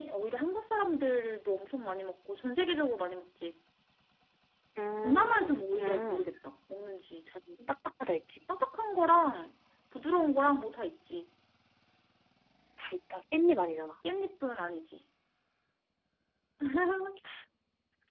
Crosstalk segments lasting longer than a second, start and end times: 5.0-6.3

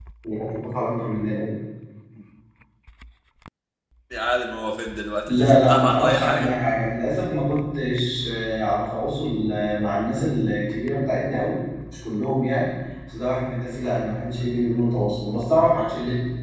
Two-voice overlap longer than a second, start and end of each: 5.3-6.5

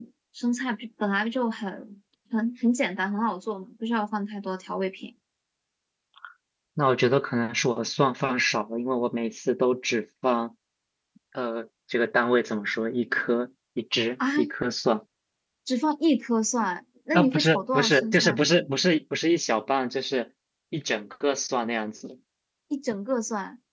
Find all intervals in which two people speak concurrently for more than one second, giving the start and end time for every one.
17.1-18.4

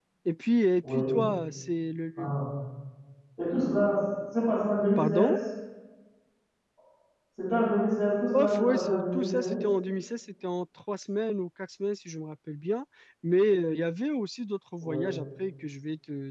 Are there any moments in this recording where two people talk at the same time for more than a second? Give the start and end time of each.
8.3-9.6

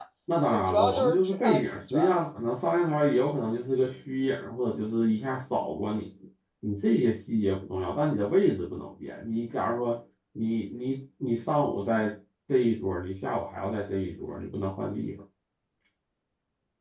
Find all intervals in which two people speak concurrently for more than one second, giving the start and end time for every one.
0.5-2.2

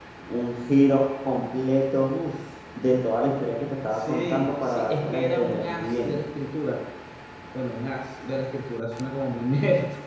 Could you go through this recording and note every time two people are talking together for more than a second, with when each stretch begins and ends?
3.9-6.2

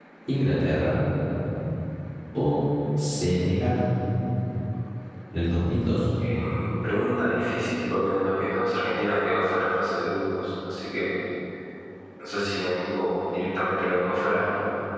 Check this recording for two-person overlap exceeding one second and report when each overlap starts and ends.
none

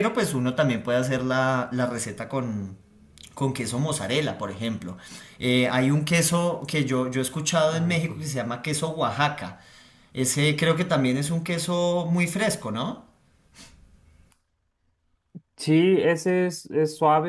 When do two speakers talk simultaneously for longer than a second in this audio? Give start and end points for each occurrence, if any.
none

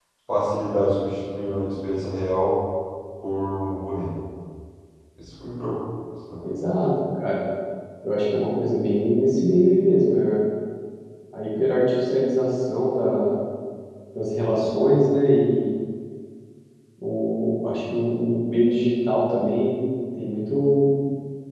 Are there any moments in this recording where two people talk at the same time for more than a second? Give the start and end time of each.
none

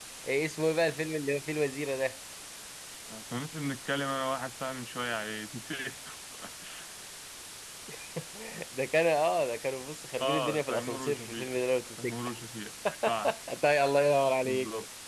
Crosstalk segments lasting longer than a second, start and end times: 10.2-11.6

